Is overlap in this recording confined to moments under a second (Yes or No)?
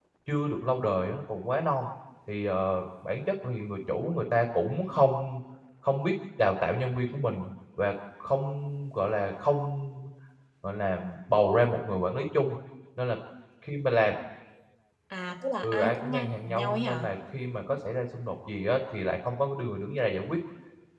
No